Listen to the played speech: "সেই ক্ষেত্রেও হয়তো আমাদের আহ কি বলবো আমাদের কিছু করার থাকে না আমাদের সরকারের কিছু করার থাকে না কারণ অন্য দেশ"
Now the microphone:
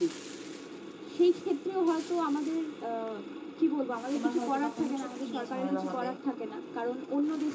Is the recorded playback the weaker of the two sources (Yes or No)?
No